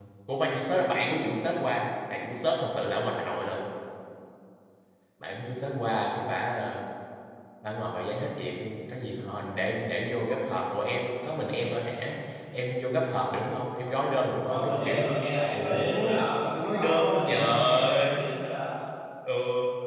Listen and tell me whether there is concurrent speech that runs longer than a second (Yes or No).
Yes